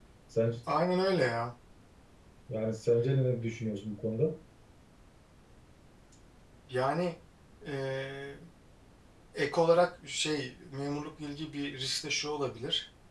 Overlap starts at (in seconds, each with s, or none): none